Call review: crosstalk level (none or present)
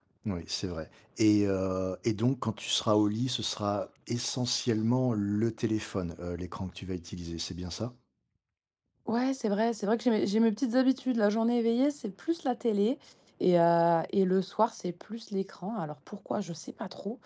none